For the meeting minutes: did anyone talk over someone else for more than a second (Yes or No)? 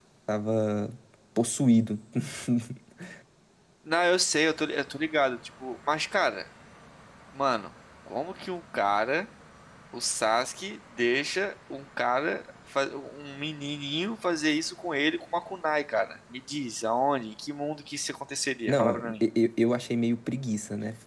No